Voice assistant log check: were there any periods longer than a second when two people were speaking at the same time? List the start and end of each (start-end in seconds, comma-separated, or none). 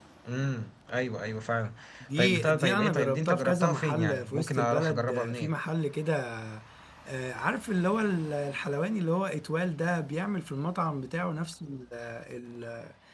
2.2-5.5